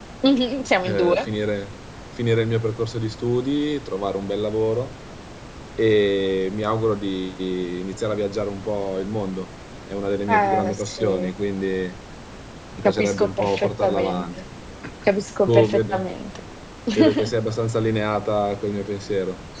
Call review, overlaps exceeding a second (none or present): present